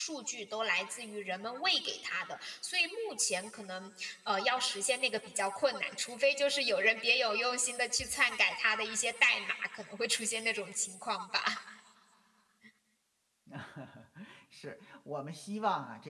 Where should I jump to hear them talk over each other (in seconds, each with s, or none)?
none